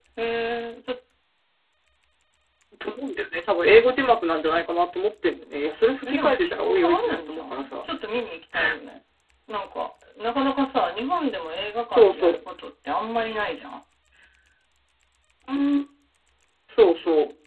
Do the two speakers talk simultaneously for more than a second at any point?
Yes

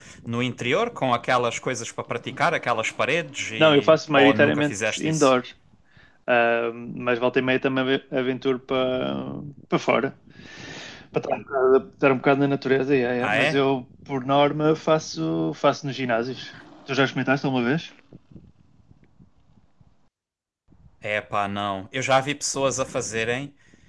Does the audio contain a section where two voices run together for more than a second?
Yes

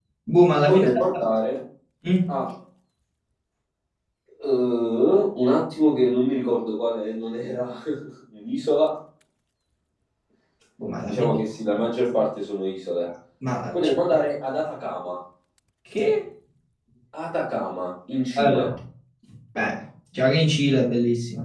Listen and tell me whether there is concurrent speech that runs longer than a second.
No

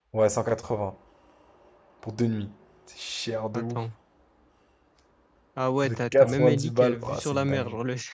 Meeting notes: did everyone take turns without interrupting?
No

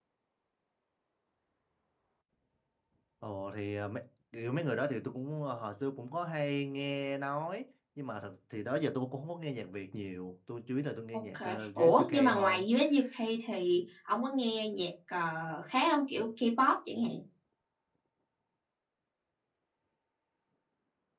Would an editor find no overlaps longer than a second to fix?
No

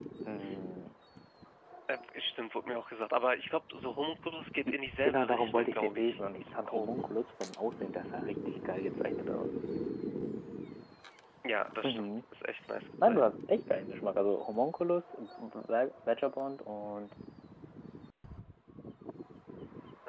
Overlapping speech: Yes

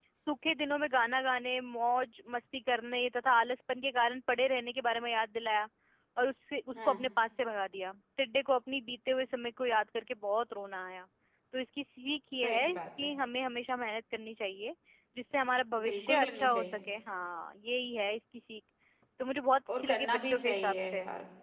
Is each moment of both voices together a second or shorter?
No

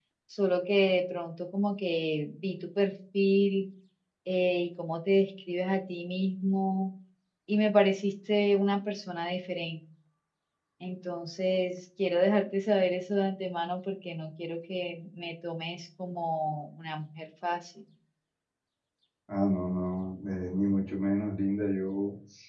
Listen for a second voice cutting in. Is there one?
No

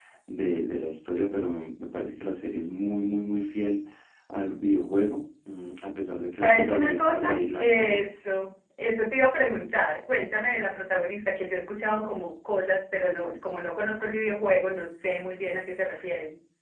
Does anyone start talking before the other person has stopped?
Yes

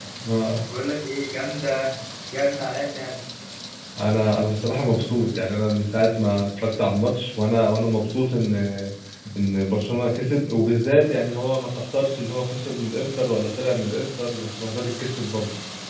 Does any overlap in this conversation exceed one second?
No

